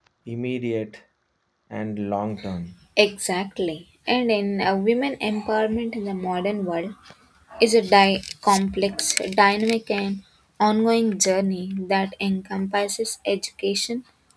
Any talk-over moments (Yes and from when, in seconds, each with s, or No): No